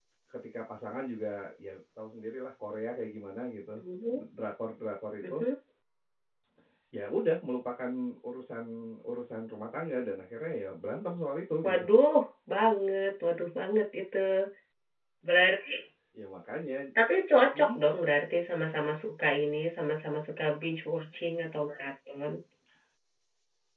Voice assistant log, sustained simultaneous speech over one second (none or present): none